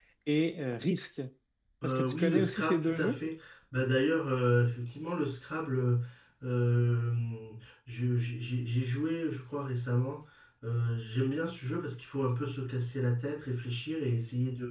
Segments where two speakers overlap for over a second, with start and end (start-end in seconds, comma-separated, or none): 1.8-3.2